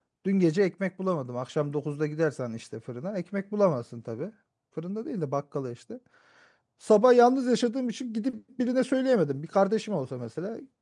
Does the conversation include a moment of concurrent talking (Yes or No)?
No